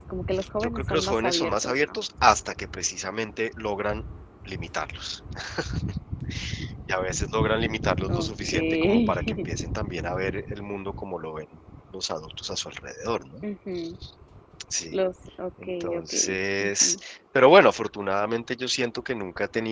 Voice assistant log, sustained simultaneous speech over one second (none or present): present